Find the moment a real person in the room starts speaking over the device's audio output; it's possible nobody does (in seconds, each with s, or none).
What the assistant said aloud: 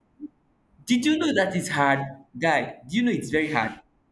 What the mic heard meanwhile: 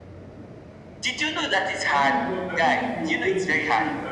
1.9 s